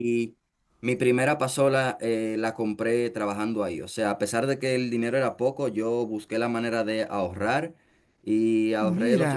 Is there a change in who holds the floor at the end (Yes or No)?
No